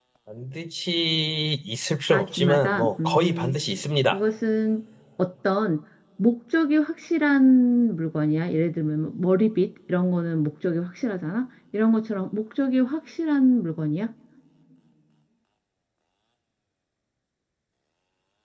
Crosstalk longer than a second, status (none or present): present